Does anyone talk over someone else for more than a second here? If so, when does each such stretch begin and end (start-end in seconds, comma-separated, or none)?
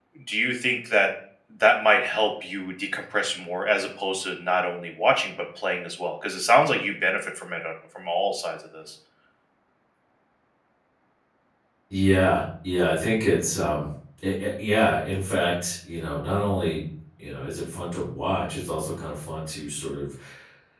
none